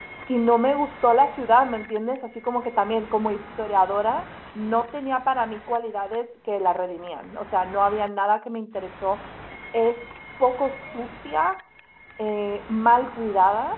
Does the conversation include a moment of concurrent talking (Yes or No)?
No